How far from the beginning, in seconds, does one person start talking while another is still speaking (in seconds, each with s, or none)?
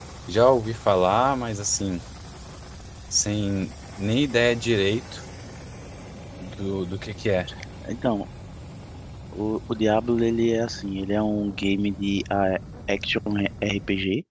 none